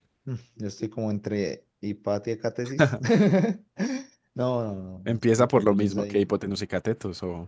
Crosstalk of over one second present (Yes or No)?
Yes